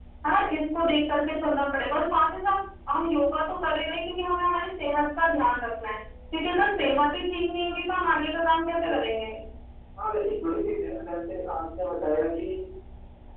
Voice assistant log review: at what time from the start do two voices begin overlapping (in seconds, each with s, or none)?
none